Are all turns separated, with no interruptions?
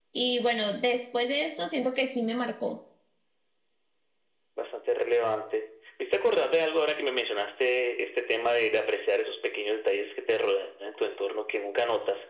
Yes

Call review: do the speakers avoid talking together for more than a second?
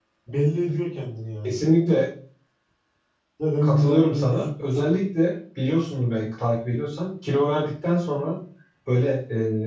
No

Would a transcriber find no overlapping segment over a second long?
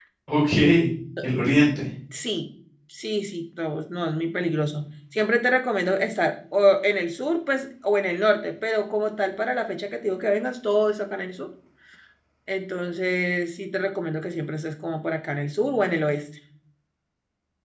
Yes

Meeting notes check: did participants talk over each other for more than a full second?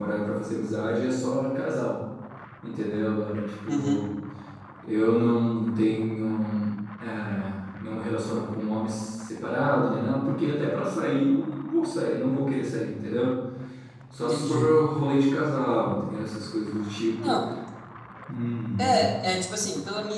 No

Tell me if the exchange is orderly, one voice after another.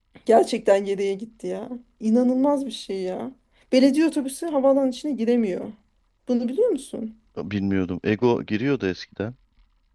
Yes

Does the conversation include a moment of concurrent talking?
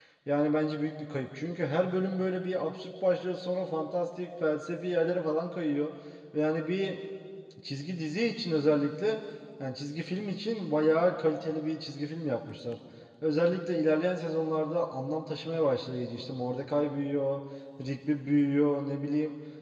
No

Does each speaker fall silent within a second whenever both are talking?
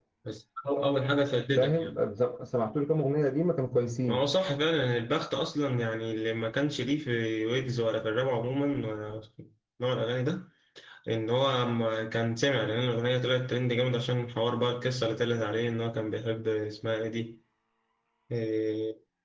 Yes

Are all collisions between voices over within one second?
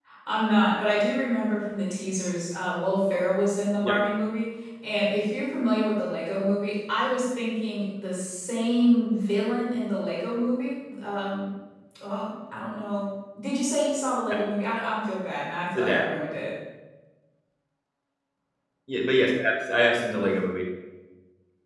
Yes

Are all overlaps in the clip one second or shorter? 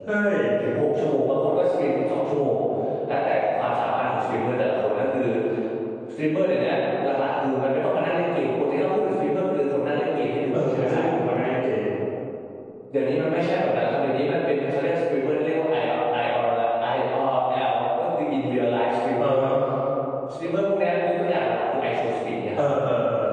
Yes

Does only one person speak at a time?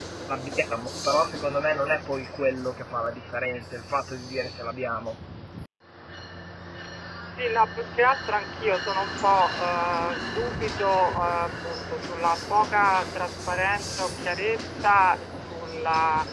Yes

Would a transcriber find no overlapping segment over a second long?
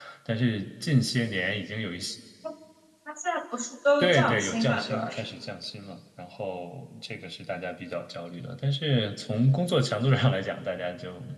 No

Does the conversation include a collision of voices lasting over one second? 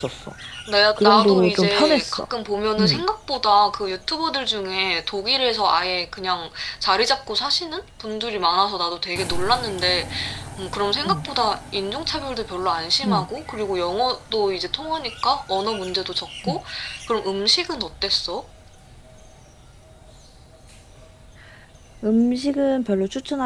Yes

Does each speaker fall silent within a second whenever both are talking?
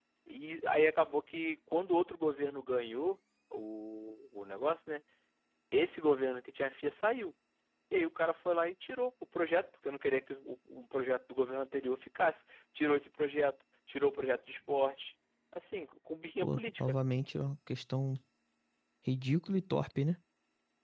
Yes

